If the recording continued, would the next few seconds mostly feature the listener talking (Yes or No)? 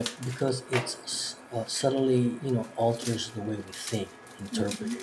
No